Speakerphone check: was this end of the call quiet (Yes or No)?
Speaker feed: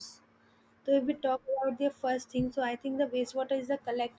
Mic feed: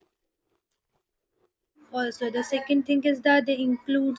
No